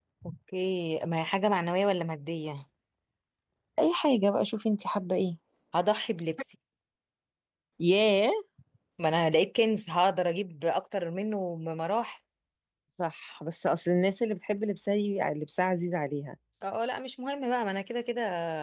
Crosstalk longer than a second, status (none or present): none